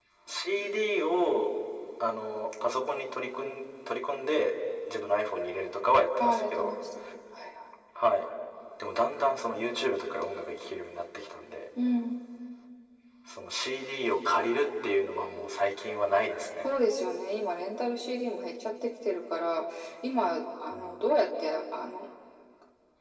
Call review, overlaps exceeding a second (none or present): none